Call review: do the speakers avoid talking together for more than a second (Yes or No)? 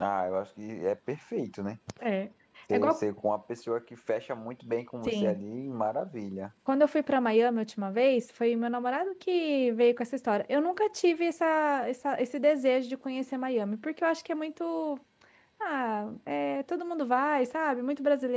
Yes